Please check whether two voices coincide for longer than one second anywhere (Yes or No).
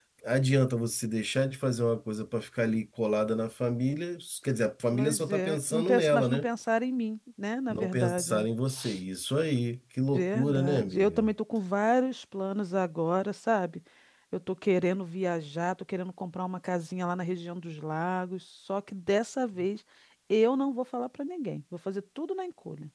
Yes